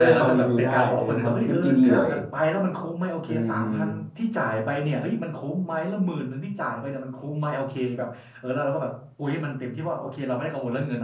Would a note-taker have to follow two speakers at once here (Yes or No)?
Yes